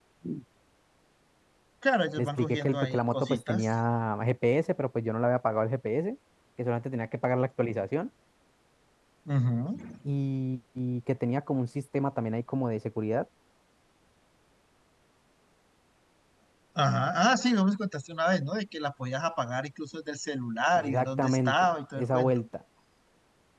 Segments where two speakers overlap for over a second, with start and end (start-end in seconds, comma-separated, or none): 2.2-3.7, 20.8-22.4